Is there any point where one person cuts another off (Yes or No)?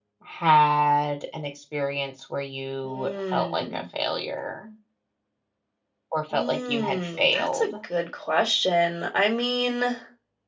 Yes